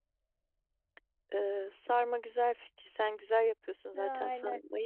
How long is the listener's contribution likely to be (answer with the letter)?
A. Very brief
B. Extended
A